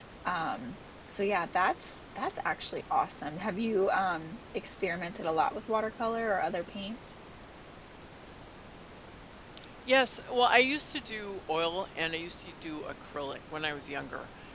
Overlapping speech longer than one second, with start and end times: none

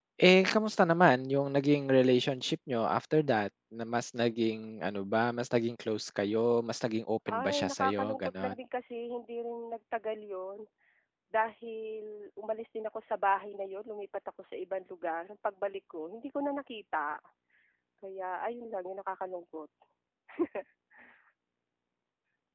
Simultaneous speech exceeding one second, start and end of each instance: 7.3-8.5

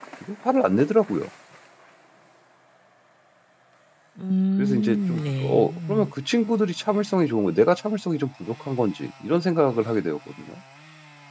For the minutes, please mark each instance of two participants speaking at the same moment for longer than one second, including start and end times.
4.6-6.1

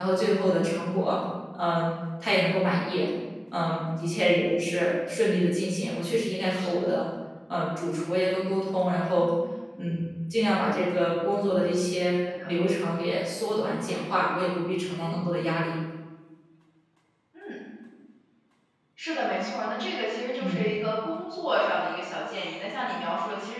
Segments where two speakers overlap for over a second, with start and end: none

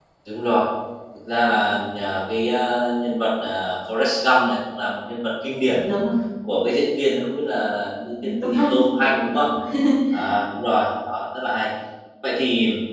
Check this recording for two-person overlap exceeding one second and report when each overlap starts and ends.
8.2-9.4

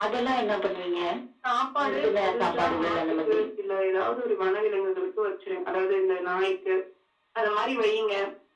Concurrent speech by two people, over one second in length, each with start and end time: 1.8-3.5

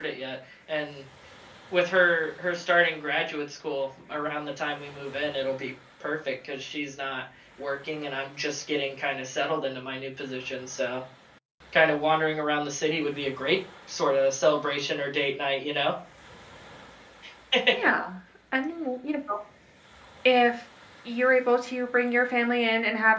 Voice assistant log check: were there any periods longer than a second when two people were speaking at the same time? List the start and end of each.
none

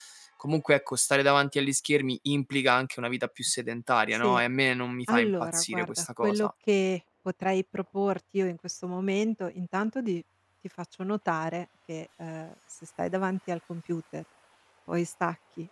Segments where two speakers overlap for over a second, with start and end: 5.1-6.5

